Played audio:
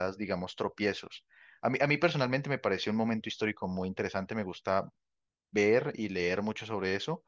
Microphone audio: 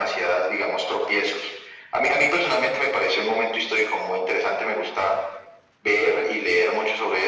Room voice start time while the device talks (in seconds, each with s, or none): none